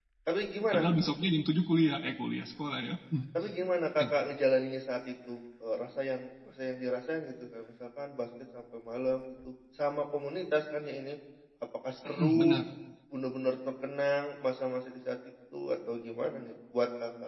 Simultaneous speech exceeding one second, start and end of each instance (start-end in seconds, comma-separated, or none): none